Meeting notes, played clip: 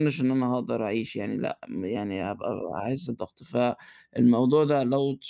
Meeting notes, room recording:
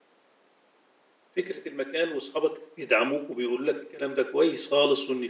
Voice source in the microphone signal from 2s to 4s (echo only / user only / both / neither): user only